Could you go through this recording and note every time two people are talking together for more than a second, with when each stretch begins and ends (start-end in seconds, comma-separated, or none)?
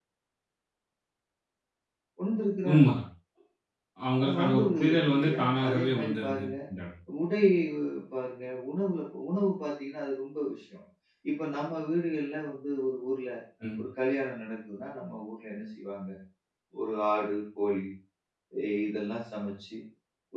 4.2-6.5